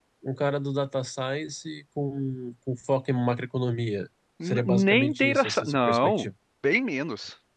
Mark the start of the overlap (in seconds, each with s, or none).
4.4 s